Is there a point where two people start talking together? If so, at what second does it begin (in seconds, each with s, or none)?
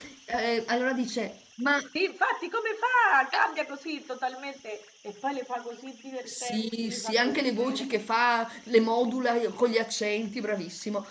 6.3 s